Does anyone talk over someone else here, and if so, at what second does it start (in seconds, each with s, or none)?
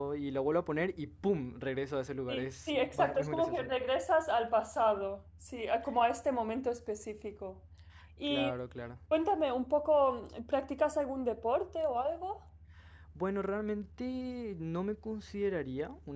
2.3 s